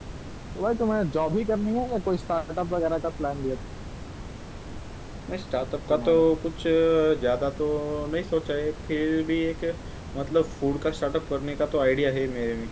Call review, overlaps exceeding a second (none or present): none